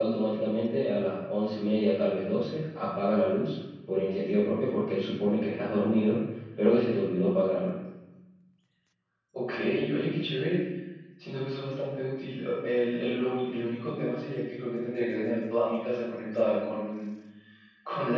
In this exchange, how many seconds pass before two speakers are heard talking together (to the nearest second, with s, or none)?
none